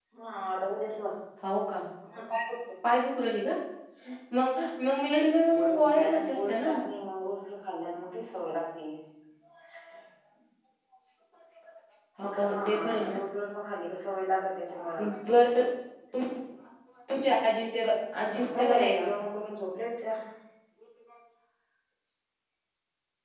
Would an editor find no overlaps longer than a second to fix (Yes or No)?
No